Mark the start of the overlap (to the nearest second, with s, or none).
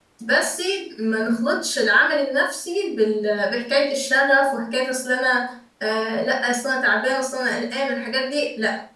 none